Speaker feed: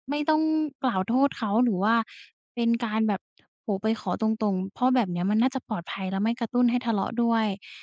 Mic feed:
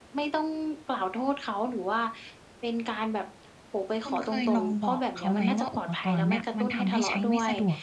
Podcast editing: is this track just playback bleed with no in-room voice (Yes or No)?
No